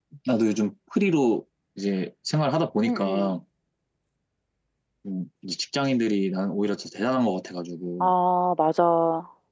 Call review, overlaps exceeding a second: none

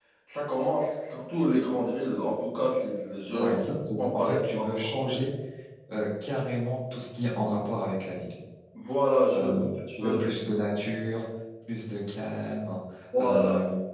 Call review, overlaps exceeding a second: present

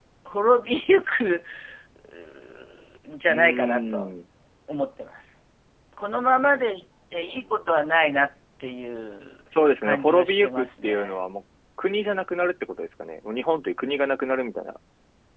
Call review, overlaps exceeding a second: present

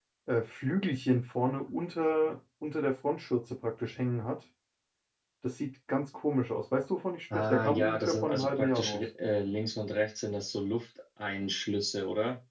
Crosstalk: present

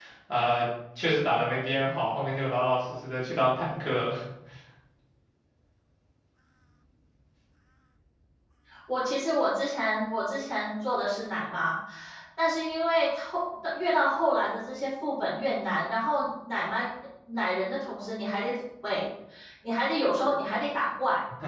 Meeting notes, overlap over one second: none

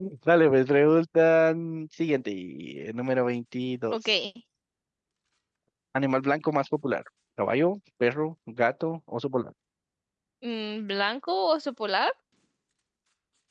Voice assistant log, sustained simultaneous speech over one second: none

